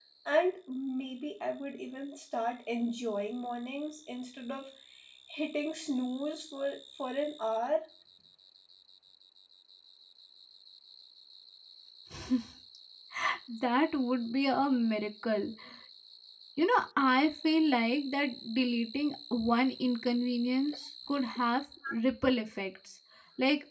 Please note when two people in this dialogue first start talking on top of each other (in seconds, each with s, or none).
none